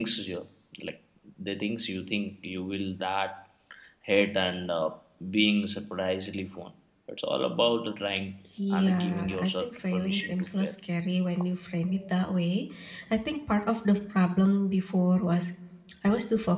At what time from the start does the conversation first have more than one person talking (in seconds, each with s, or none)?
8.7 s